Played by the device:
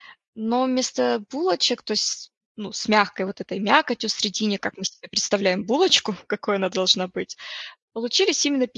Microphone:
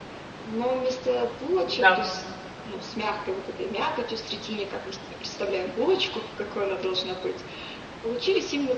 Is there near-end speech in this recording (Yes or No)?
Yes